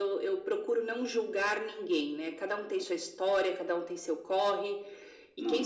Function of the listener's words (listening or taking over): listening